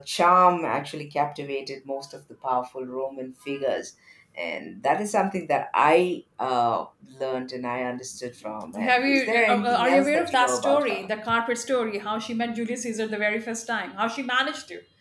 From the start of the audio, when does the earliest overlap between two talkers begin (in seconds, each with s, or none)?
8.8 s